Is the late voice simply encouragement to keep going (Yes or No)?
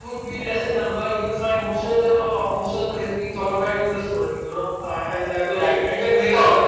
Yes